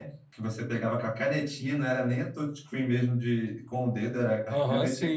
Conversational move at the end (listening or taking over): taking over